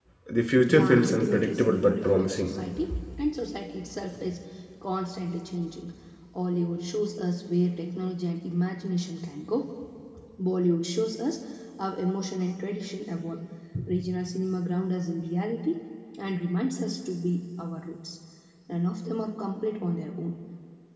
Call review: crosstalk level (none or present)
present